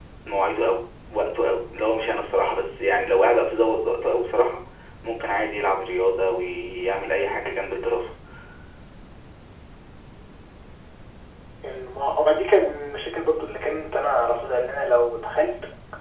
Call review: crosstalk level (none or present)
none